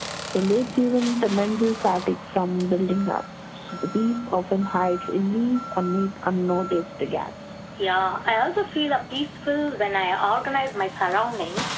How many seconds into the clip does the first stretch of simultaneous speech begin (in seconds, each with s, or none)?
none